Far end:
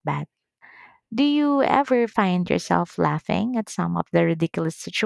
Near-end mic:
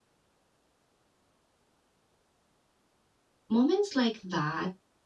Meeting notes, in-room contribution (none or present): present